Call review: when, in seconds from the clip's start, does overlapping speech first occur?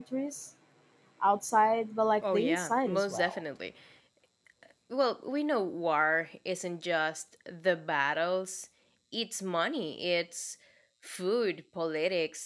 2.2 s

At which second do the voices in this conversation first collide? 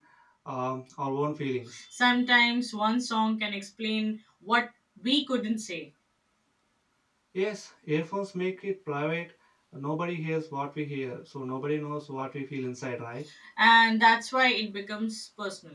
none

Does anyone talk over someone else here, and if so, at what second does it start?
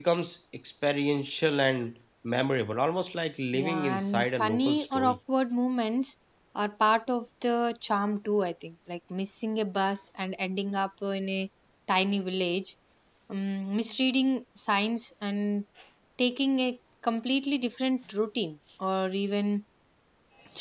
3.5 s

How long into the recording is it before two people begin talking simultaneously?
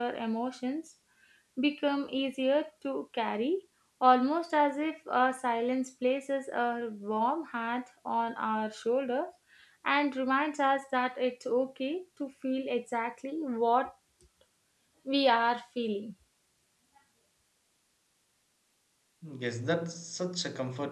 none

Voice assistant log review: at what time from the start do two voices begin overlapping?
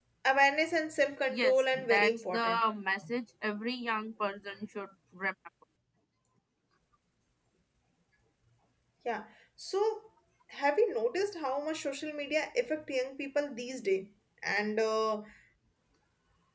1.3 s

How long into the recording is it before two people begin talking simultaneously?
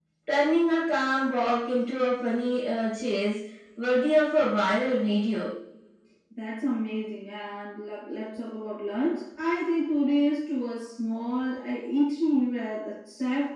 none

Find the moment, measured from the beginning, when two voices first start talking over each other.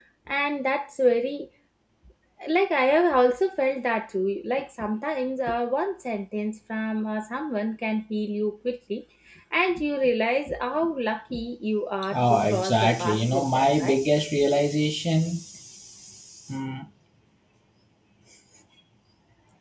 12.3 s

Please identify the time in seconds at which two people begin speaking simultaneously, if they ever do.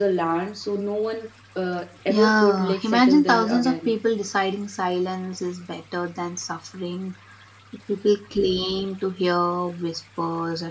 2.1 s

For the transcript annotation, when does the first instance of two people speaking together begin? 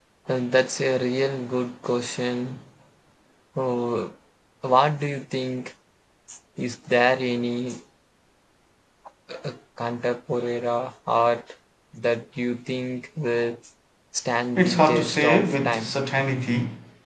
14.6 s

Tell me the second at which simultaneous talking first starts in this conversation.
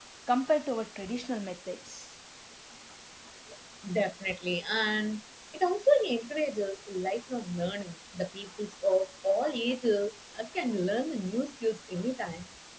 none

